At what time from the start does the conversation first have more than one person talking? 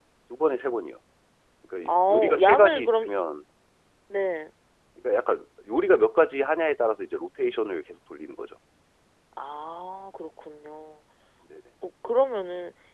1.9 s

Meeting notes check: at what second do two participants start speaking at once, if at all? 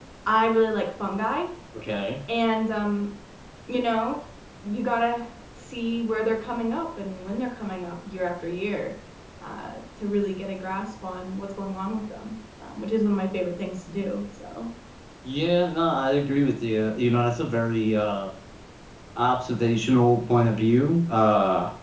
none

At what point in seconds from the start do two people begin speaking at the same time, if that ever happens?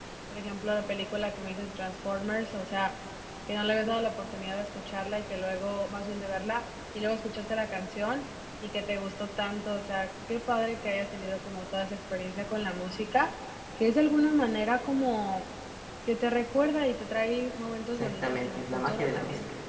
18.0 s

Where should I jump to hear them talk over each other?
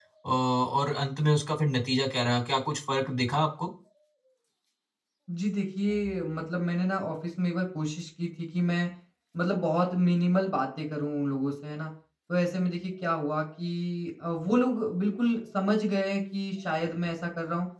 none

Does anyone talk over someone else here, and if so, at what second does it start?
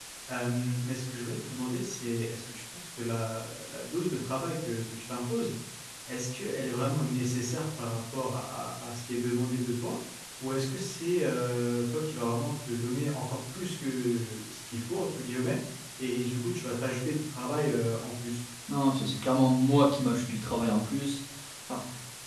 none

